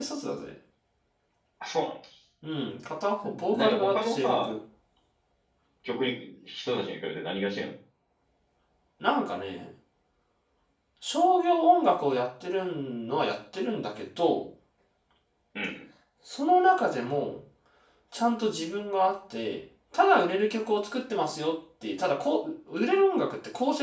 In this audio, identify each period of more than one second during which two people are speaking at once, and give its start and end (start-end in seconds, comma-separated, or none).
3.2-4.5